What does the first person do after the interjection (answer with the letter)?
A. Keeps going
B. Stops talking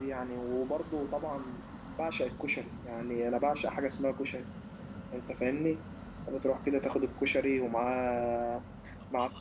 B